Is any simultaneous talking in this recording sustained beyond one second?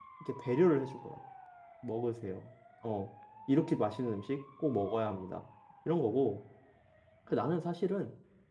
No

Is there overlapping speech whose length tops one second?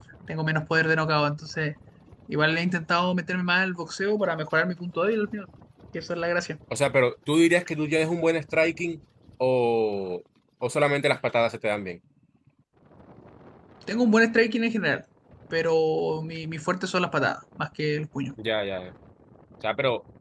No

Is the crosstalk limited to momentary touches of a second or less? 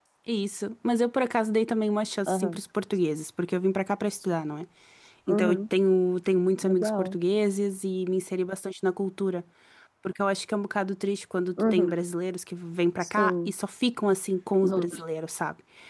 Yes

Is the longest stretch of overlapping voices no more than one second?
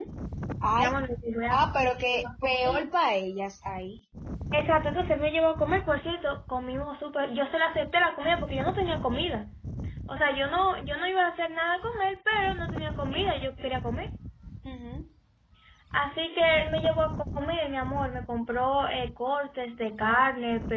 No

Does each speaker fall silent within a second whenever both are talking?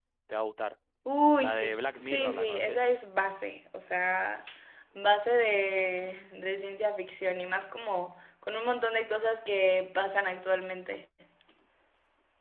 No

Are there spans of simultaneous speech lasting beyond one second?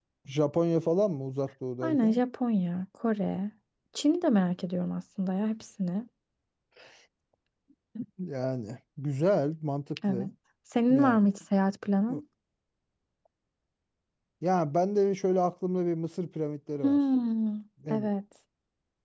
No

